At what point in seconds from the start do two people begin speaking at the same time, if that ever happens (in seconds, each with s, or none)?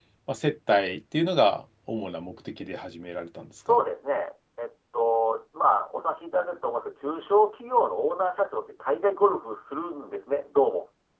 none